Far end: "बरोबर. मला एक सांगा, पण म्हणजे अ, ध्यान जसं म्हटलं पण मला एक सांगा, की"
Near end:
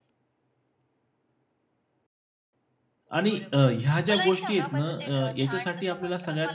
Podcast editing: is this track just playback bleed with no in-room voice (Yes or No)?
No